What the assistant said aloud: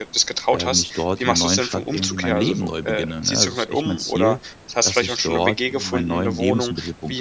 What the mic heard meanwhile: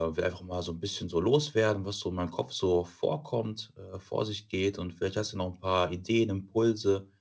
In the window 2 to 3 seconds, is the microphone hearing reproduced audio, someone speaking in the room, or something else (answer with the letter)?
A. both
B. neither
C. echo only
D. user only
D